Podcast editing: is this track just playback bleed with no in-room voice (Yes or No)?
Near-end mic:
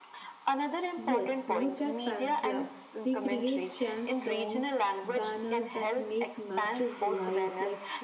No